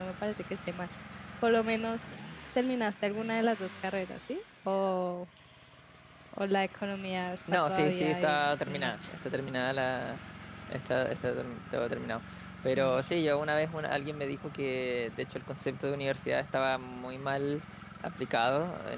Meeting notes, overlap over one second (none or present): present